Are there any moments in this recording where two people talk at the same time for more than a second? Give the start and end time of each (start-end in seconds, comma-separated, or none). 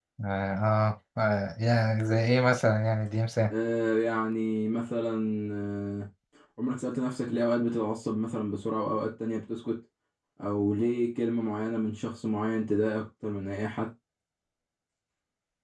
none